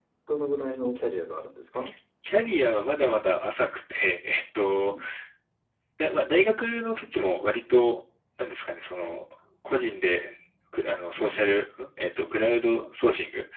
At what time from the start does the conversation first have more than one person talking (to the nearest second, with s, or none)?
none